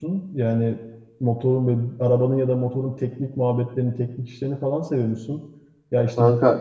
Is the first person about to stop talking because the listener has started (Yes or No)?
No